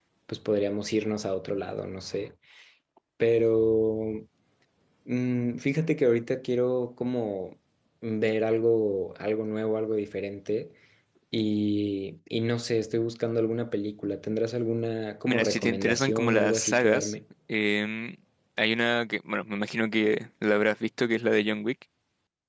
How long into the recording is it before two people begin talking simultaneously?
15.3 s

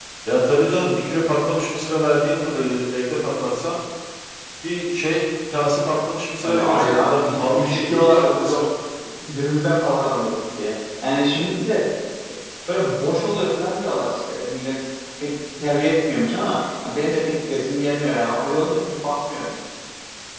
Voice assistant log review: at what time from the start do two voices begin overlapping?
6.4 s

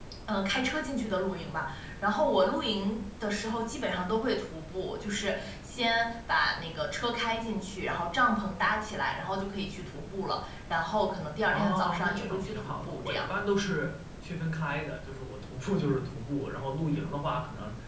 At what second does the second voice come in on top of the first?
11.5 s

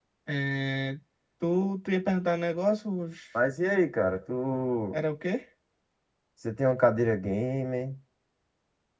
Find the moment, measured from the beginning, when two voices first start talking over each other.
none

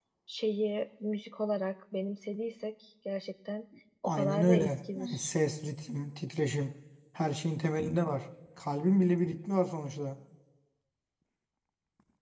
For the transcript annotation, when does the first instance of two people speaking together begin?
4.0 s

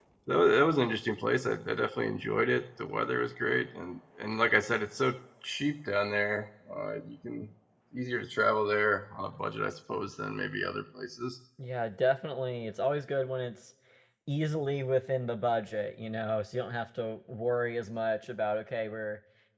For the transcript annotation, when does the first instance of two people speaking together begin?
none

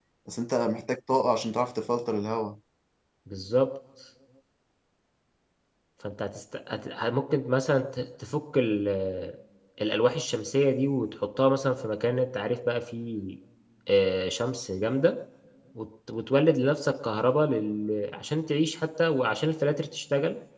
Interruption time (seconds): none

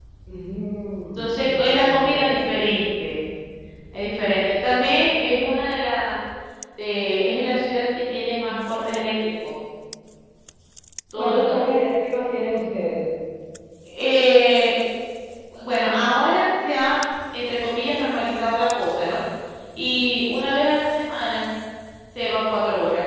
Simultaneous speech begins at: 1.2 s

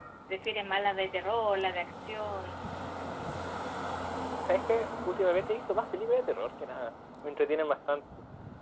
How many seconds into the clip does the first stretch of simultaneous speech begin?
none

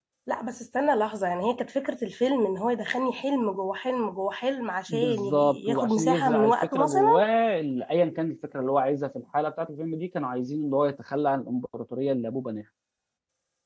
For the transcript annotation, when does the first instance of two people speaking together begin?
4.9 s

